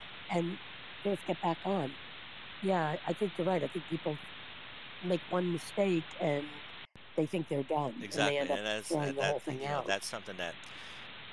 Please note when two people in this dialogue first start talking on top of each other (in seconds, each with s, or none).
8.0 s